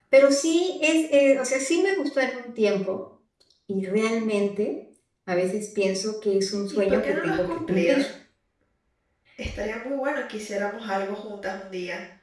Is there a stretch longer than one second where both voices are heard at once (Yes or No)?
Yes